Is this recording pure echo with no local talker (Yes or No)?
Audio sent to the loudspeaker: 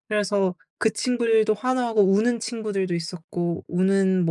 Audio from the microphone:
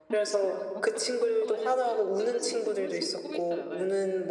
No